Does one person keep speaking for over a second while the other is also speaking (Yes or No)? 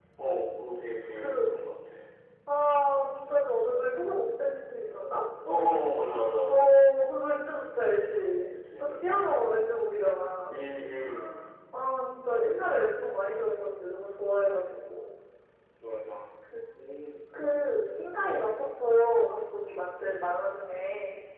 No